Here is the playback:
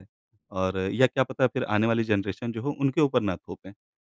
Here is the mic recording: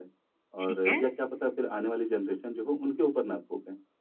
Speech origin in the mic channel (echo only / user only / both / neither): both